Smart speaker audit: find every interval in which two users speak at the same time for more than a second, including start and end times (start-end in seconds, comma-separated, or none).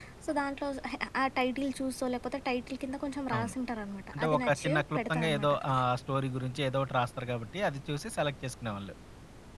4.1-5.5